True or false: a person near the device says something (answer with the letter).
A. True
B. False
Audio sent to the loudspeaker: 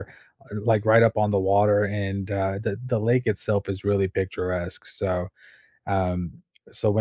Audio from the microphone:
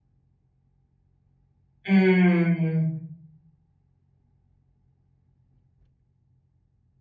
A